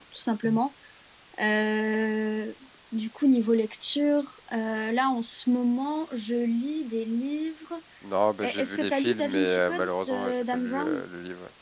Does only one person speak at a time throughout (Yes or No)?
No